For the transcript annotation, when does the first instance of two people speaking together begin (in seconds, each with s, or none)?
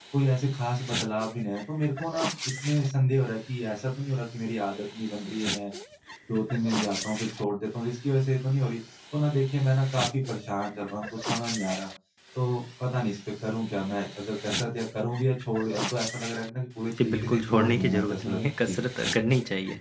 17.0 s